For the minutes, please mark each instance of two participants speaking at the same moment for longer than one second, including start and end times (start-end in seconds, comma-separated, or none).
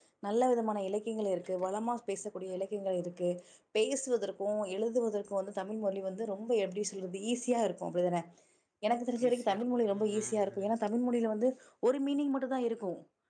9.3-10.7